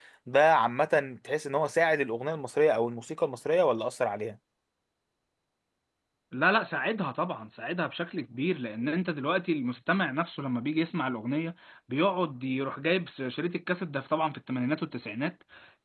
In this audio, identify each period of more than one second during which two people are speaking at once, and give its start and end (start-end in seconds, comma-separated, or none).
none